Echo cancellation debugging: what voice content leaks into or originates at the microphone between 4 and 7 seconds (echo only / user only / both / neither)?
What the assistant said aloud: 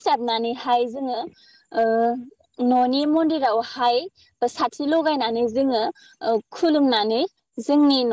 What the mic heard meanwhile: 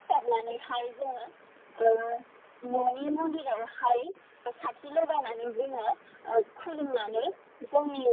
echo only